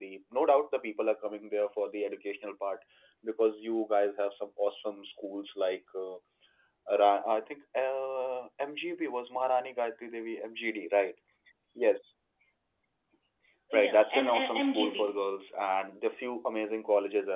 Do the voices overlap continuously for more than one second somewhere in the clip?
Yes, from 13.7 s

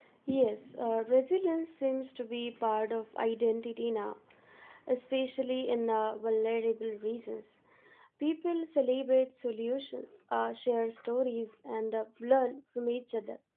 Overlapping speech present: No

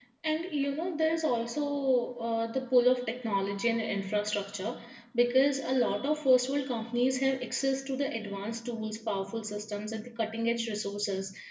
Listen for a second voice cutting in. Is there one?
No

